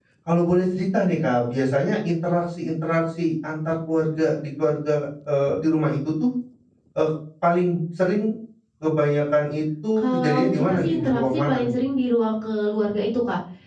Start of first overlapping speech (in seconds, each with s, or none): 10.0 s